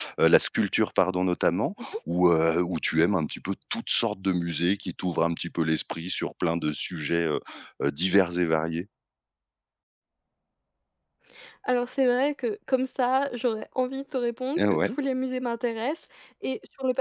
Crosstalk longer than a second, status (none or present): none